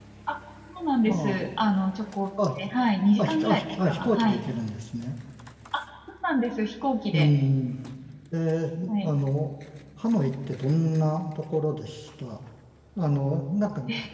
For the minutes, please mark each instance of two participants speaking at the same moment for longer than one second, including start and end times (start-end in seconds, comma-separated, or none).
3.2-4.4